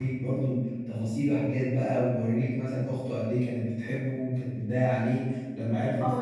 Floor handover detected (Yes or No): Yes